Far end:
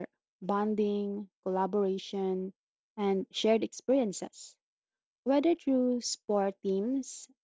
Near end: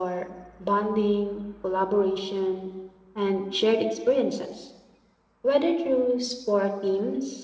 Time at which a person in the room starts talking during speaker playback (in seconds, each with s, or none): none